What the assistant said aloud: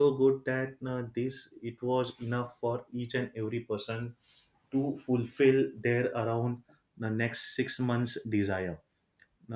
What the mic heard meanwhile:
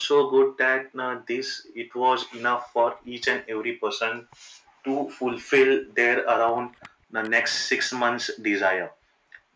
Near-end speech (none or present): none